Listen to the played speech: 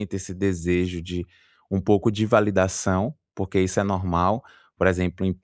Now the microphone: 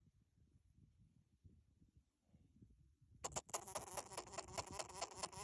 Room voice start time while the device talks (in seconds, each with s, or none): none